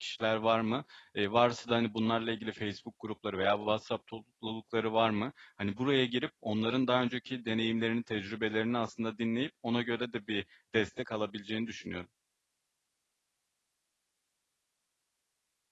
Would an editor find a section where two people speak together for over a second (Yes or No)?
No